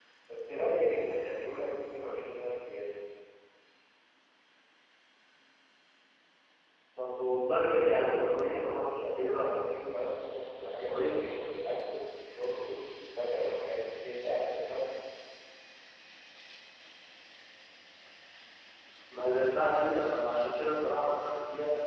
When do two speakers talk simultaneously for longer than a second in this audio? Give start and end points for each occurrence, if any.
7.7-9.6

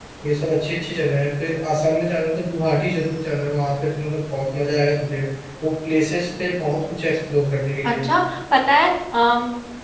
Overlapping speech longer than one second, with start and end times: none

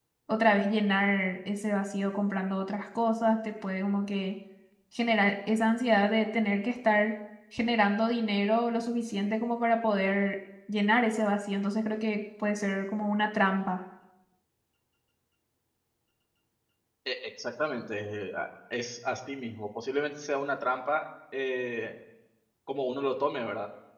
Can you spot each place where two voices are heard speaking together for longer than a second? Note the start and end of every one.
none

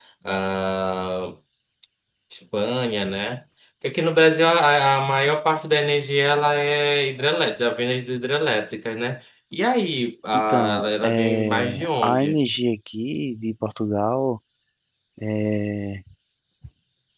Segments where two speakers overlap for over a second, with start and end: 10.3-12.4

